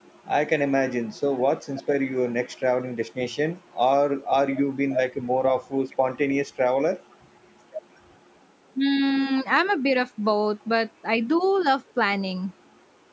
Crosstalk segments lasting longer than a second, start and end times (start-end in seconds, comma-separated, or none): none